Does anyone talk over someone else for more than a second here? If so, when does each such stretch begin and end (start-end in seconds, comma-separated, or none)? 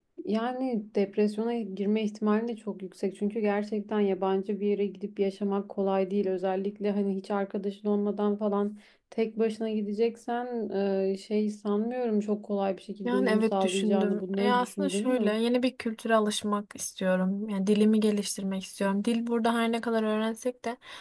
13.0-15.4